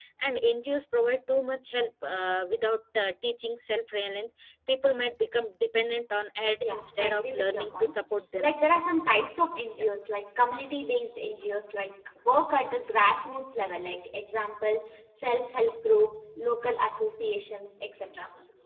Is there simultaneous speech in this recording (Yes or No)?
Yes